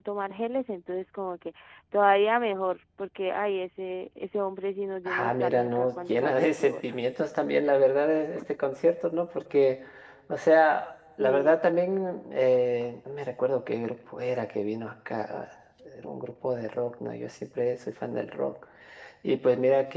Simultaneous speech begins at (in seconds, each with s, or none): 5.1 s